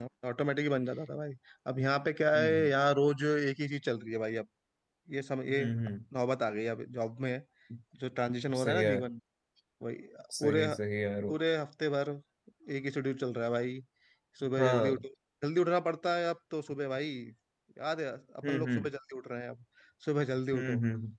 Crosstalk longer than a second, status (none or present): none